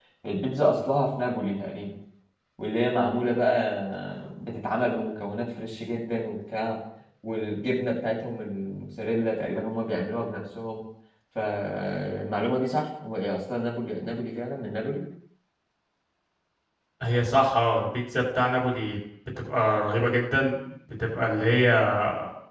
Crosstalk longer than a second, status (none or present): none